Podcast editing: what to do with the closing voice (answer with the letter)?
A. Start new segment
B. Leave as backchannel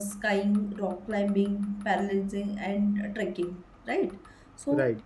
B